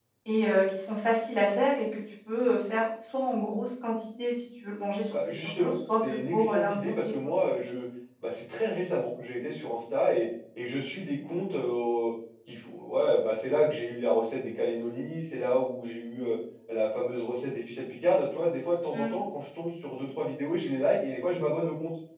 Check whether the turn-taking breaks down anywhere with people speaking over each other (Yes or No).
Yes